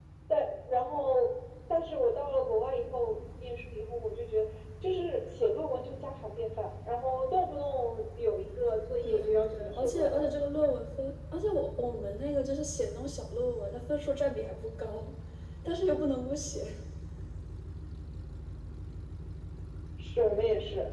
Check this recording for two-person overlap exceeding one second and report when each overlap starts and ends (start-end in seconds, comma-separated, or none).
9.0-10.2